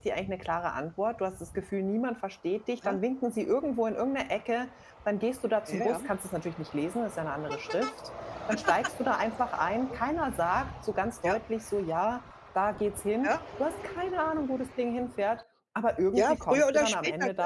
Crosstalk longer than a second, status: present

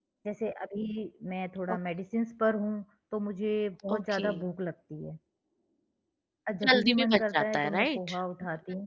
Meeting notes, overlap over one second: present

